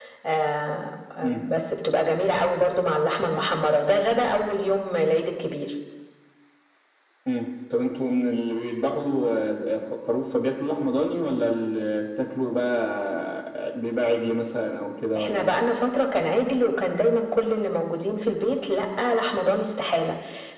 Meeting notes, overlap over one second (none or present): none